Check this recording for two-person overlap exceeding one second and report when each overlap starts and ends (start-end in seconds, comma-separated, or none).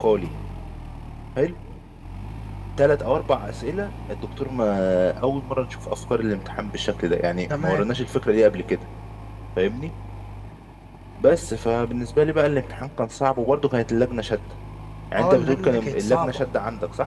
15.2-16.4